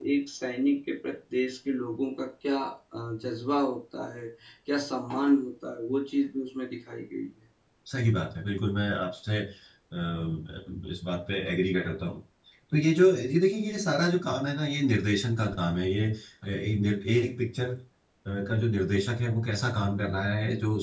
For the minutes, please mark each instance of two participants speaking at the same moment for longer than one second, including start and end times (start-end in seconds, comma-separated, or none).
none